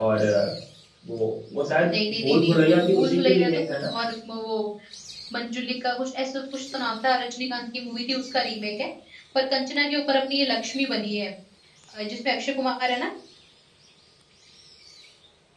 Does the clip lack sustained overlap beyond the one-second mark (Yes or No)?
No